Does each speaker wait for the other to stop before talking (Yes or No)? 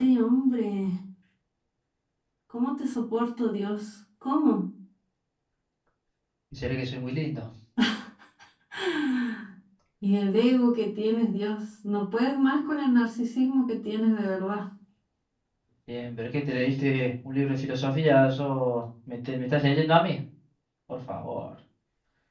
Yes